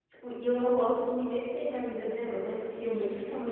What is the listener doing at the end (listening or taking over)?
listening